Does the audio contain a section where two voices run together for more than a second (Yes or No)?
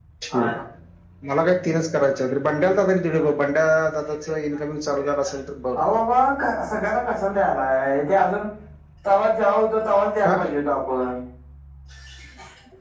No